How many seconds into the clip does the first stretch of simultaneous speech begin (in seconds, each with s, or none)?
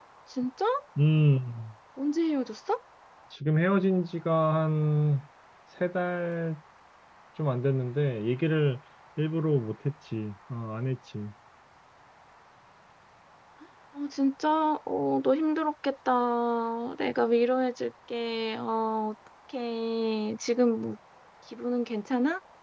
none